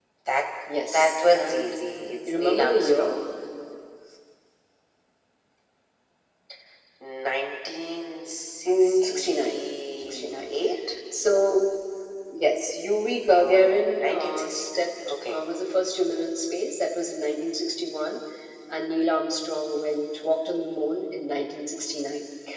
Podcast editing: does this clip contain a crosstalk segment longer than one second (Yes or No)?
Yes